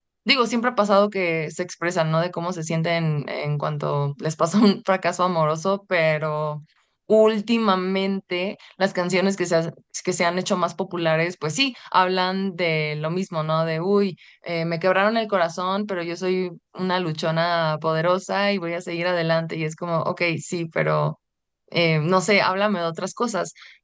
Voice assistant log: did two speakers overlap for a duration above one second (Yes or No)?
No